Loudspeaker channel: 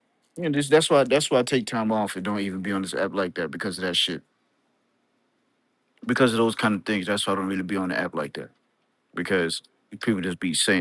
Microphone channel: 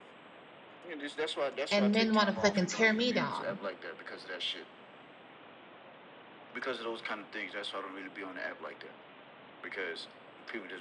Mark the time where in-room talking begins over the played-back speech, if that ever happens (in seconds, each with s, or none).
1.7 s